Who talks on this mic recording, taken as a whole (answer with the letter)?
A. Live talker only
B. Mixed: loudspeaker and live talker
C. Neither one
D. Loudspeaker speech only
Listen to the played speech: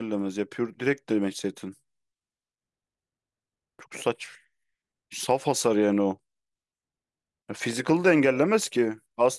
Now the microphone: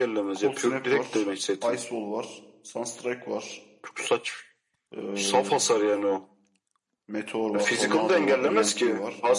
B